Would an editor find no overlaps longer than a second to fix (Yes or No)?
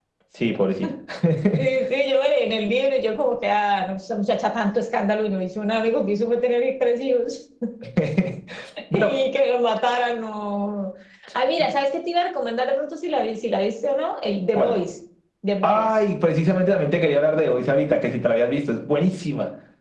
Yes